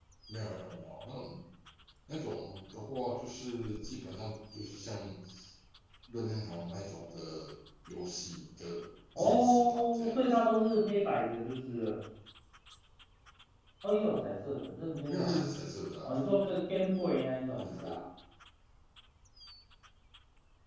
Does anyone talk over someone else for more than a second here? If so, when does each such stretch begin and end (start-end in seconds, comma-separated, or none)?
9.2-10.4